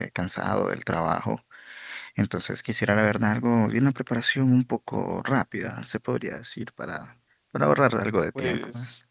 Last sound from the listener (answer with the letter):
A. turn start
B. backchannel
A